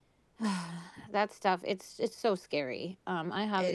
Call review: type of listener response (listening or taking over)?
listening